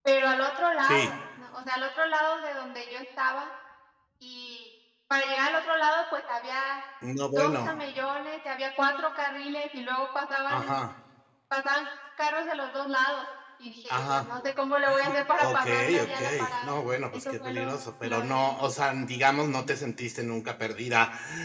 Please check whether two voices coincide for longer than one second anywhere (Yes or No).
Yes